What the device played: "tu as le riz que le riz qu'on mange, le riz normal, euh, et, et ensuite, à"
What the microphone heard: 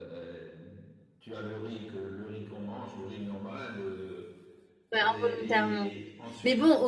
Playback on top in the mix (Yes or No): No